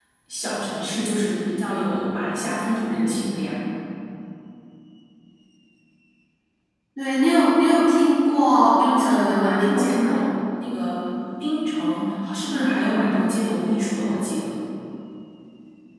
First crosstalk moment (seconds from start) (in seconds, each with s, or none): 8.6 s